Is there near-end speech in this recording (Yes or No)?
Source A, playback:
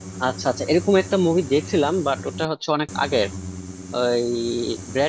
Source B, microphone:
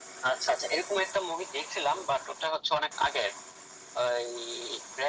No